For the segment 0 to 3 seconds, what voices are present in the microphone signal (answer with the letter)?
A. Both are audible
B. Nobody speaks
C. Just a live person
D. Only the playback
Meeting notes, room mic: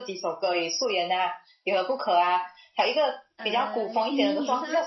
D